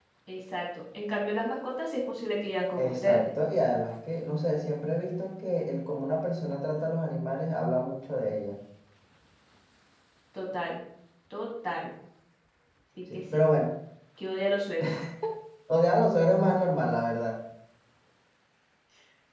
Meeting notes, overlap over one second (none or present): none